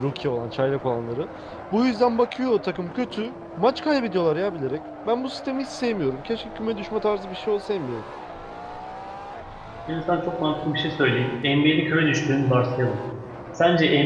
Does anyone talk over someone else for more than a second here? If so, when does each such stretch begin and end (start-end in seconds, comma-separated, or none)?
none